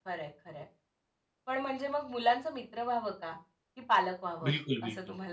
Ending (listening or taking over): taking over